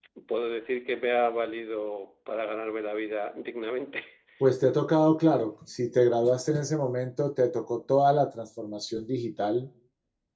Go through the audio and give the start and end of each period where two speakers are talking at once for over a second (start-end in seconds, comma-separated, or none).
none